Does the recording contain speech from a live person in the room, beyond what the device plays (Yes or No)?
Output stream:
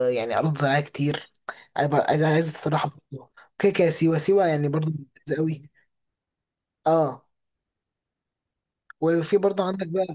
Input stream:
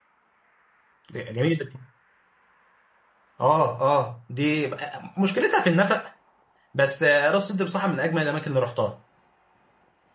Yes